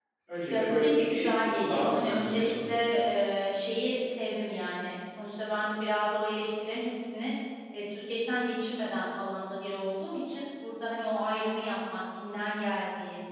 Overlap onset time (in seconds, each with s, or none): 0.5 s